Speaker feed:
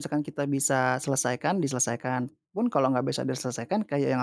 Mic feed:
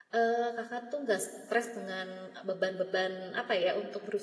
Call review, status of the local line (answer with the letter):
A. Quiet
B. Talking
B